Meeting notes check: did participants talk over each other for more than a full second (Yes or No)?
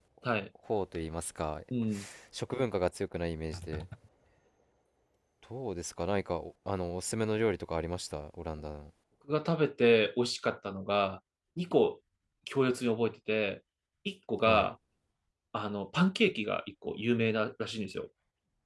No